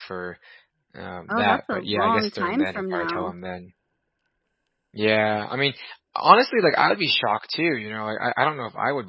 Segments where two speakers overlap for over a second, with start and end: 1.3-3.3

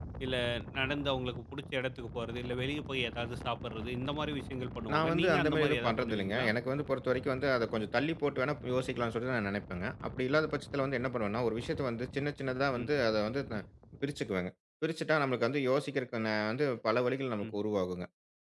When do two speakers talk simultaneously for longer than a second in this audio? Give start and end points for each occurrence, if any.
4.9-6.5

